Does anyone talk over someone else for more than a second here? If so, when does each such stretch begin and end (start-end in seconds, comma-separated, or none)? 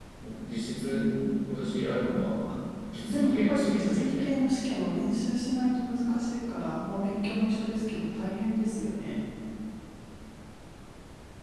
2.9-4.3